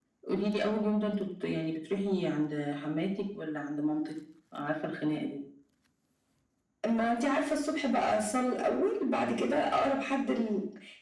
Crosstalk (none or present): none